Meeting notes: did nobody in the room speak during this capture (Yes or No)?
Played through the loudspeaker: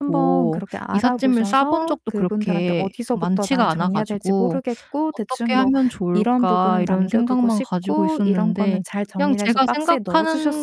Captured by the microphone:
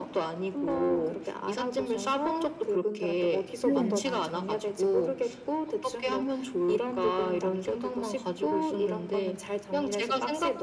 No